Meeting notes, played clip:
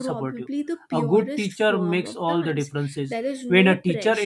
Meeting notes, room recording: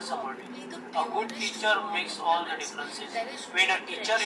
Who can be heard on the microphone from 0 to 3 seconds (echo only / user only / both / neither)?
echo only